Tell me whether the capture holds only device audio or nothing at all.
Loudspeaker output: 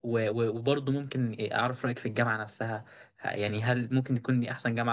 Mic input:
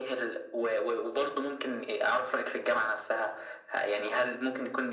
Yes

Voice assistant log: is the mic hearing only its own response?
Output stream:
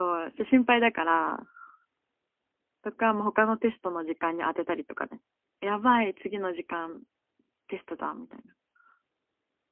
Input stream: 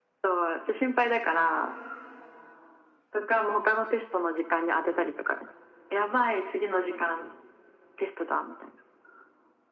Yes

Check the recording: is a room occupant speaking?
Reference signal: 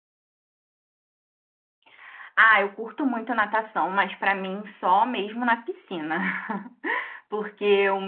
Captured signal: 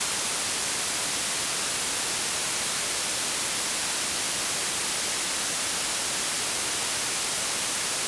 No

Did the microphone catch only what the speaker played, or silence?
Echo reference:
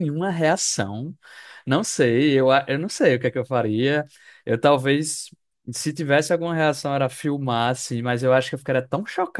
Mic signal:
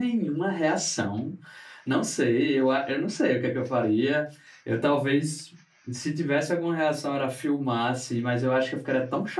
Yes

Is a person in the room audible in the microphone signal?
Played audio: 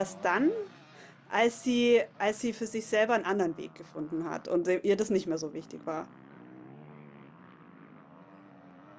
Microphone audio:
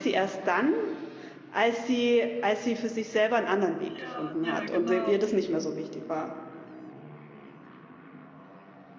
Yes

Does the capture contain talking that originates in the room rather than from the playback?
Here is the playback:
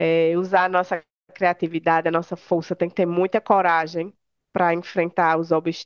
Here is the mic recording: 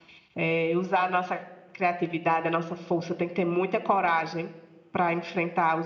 No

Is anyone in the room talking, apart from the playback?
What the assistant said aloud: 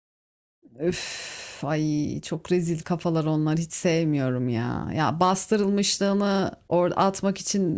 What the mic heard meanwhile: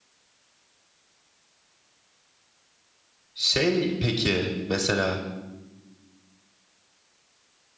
Yes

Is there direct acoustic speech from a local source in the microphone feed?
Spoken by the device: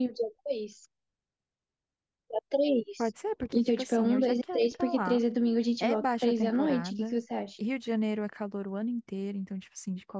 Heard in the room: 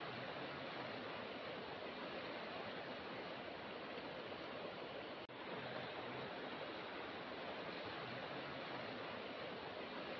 No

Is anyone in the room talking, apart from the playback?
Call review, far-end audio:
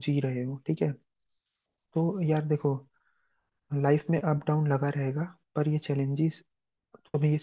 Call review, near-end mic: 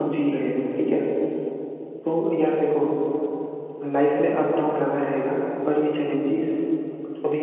No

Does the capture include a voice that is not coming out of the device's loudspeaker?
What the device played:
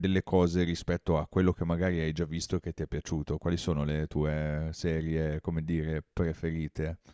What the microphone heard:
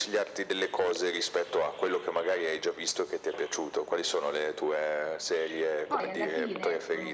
Yes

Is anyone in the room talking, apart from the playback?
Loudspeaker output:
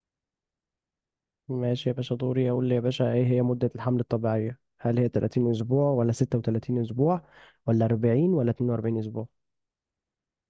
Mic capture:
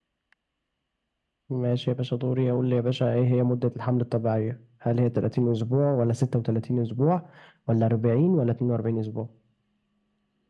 No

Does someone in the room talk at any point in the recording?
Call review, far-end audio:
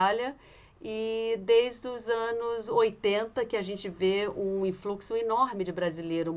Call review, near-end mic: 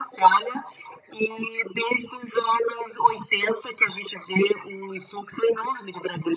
No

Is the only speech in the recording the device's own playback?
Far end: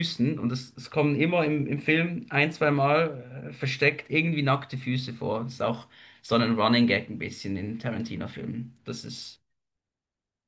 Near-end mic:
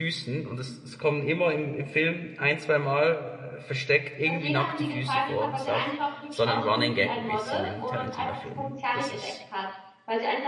No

